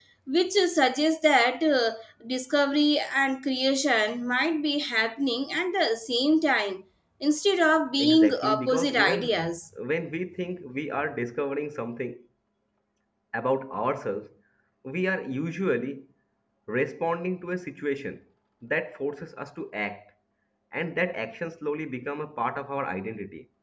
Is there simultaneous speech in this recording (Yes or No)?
Yes